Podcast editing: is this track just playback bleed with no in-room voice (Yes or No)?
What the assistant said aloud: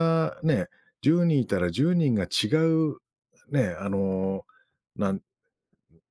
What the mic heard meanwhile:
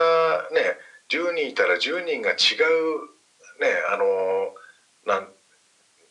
Yes